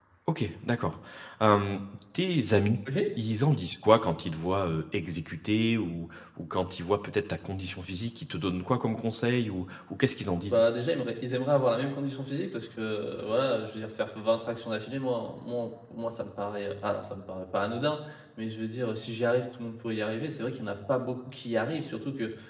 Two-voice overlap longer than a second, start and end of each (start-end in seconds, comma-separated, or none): none